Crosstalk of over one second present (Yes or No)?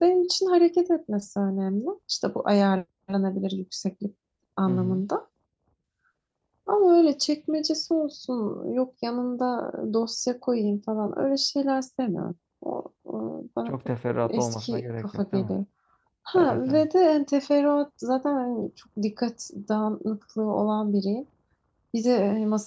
Yes